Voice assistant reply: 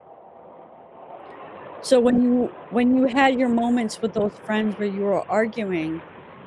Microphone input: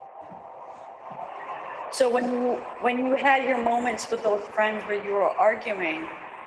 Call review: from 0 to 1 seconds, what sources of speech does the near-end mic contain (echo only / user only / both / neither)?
neither